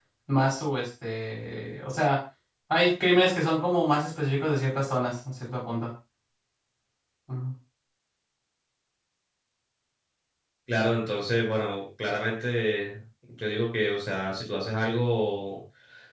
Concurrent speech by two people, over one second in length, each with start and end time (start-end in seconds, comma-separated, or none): none